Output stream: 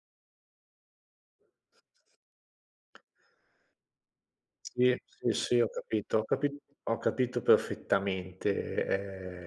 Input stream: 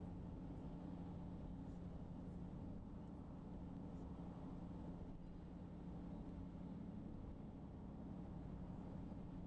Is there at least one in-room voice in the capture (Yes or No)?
No